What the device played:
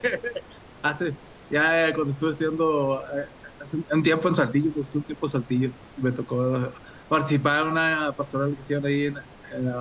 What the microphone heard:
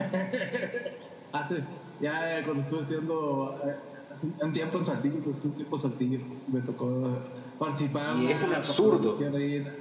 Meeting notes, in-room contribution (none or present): present